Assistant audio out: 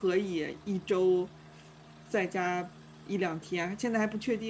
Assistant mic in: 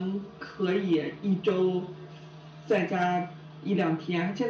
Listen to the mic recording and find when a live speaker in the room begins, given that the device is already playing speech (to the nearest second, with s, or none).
none